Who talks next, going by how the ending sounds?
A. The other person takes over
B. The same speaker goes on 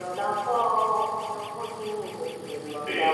B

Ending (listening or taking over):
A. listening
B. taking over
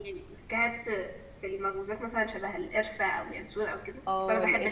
B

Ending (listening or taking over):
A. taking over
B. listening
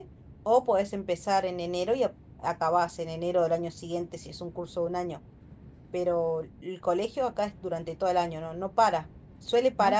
B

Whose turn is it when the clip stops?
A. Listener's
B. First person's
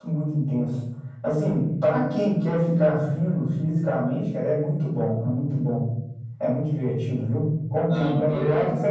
B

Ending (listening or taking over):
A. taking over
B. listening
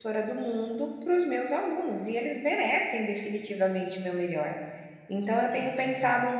B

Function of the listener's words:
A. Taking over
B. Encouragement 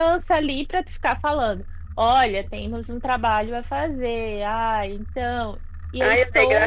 A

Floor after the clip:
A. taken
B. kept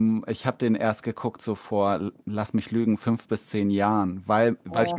B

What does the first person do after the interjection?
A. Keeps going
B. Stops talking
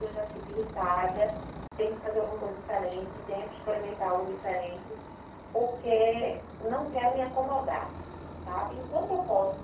A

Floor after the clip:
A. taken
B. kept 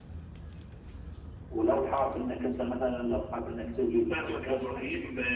A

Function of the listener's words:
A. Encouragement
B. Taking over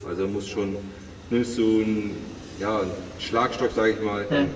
A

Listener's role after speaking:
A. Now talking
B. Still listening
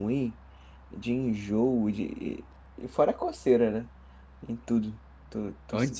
A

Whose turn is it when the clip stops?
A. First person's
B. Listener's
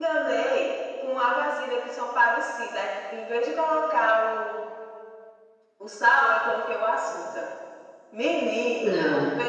A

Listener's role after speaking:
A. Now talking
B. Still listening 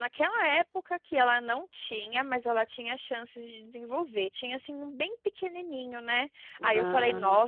B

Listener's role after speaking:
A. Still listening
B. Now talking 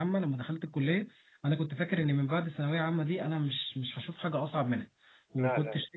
A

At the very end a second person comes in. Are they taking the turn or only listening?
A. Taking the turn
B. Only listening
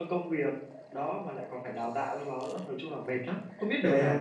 A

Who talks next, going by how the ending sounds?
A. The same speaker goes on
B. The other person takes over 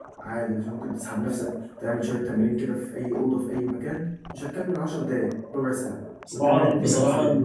B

